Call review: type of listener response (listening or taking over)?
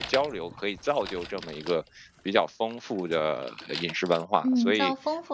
taking over